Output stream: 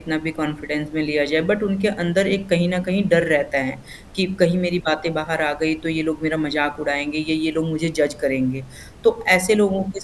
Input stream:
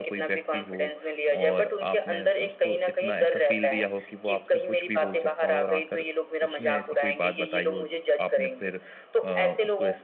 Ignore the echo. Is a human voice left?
Yes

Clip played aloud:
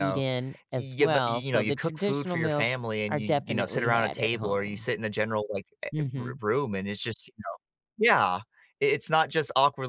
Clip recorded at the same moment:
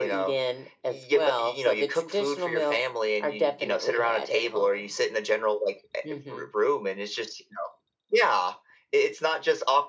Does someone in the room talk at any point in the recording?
No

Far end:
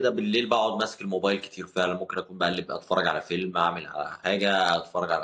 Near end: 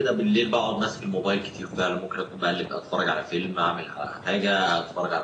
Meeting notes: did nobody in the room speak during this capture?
Yes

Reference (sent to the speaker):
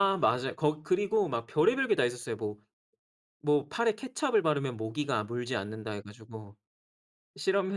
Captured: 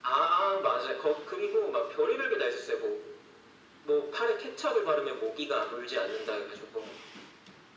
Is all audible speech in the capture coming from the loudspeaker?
Yes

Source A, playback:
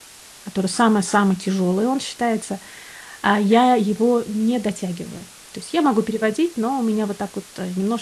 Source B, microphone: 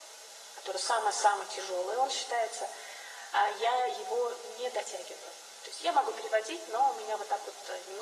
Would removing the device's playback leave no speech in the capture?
Yes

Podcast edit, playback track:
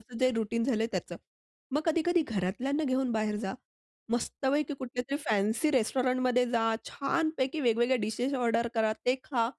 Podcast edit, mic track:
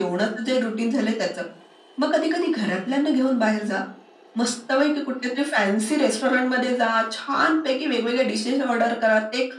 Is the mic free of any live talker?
Yes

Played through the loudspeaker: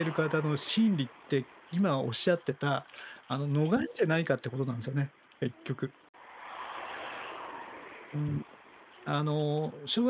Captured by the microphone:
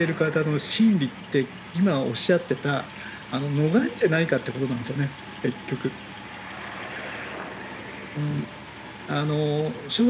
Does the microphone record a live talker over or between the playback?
No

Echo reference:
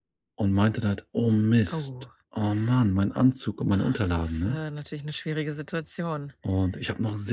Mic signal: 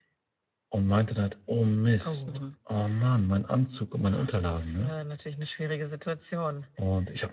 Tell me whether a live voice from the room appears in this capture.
Yes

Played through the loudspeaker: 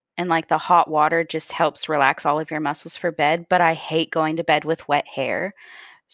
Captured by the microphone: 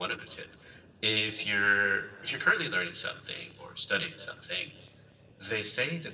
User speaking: Yes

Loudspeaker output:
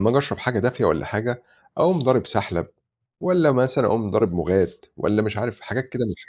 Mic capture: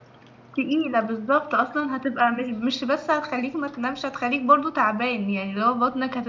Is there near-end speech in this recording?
Yes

